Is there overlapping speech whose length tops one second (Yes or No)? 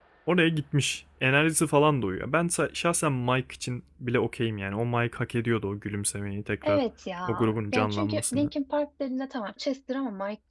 Yes